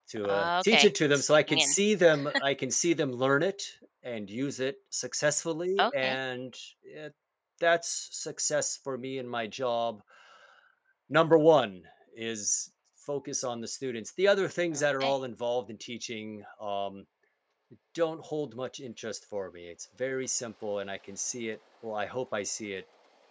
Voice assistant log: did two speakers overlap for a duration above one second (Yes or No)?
Yes